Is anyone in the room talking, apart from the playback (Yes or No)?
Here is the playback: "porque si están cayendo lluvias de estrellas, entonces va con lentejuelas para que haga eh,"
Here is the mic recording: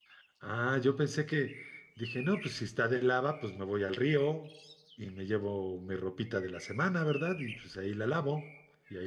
Yes